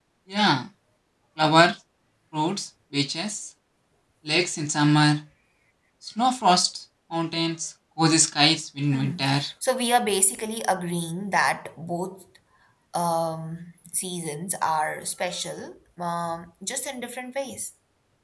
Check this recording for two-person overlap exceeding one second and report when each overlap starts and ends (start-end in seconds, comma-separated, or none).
none